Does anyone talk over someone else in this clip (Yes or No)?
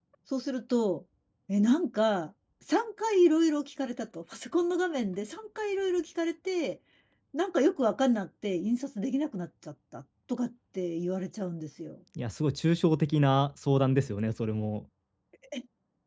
No